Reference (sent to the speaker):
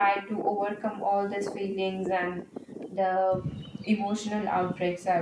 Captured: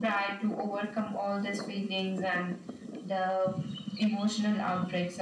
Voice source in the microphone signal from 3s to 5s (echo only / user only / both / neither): echo only